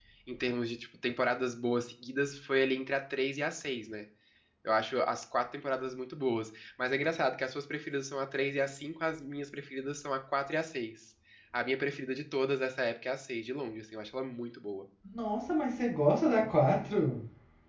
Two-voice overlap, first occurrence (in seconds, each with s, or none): none